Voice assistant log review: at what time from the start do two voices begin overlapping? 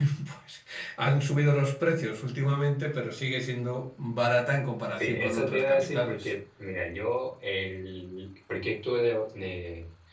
5 s

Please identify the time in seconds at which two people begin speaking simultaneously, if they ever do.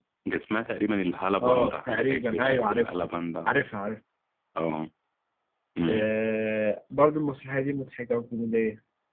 1 s

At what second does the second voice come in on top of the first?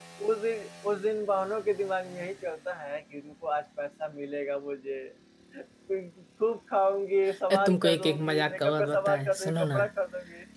7 s

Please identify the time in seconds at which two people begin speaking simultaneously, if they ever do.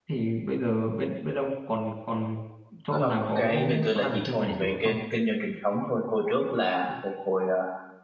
3 s

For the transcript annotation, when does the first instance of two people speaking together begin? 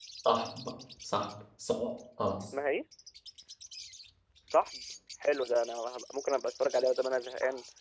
none

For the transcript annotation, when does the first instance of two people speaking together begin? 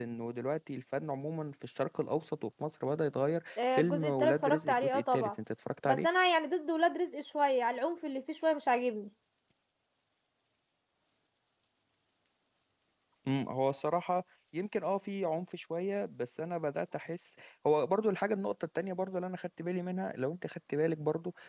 4 s

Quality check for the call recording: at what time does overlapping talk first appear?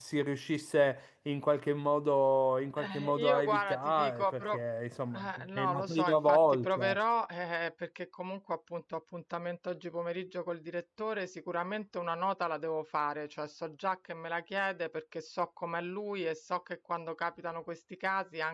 3 s

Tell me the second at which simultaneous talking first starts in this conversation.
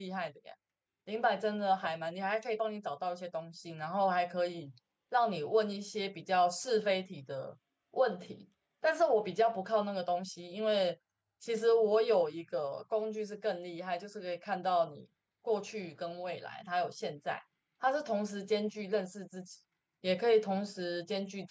none

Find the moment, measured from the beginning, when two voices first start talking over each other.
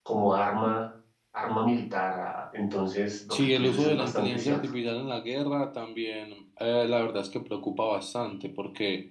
3 s

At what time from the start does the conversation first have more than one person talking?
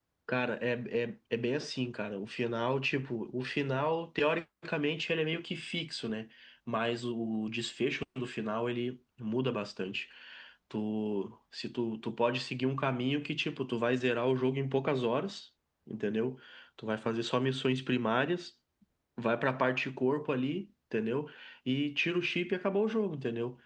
none

